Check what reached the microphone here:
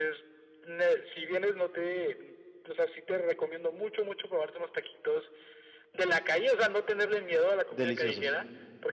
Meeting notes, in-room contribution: present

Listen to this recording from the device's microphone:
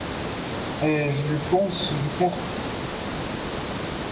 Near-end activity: present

